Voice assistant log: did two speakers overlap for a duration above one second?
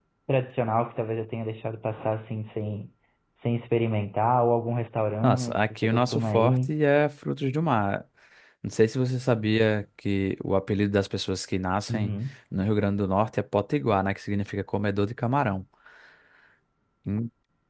Yes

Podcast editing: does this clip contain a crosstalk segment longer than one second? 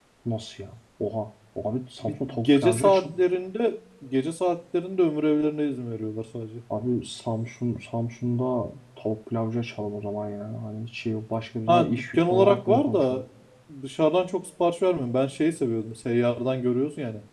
Yes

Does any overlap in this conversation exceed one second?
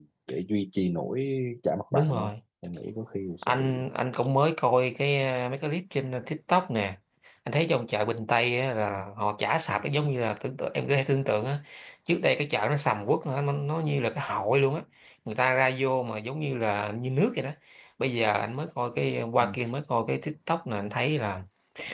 No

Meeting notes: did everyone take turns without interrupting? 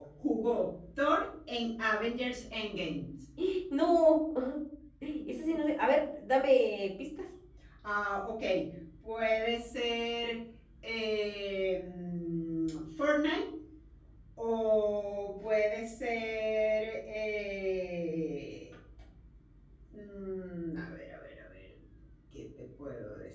Yes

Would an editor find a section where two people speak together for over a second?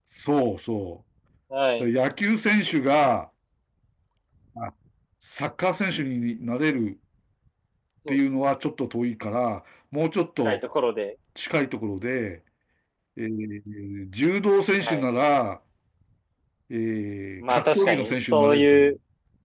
Yes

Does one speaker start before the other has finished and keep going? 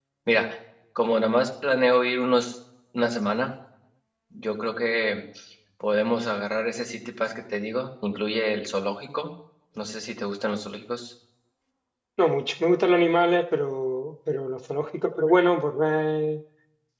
No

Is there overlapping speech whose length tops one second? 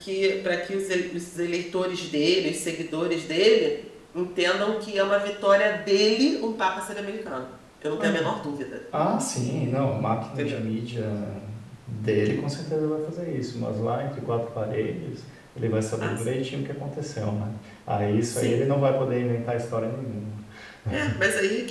No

